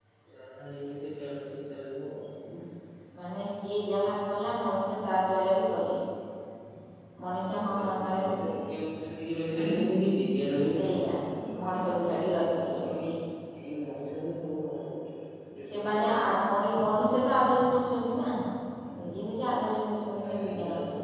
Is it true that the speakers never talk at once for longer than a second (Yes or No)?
No